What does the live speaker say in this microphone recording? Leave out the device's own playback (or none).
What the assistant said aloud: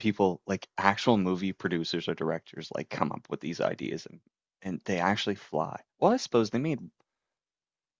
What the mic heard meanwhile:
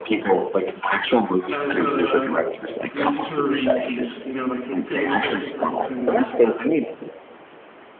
as a literary piece, you know, like a philosophical kind of,